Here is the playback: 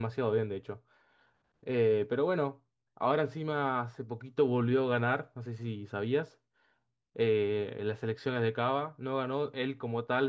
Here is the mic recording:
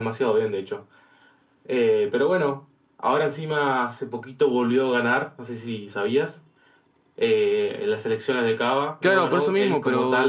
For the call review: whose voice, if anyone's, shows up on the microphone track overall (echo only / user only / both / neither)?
both